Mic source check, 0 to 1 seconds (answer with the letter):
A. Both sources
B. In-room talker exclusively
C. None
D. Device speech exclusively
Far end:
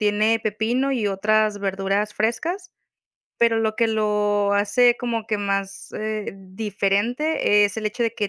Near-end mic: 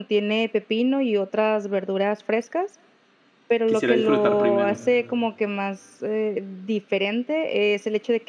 D